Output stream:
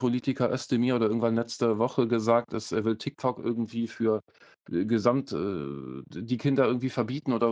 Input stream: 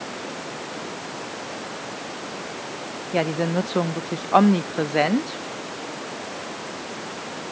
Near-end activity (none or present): present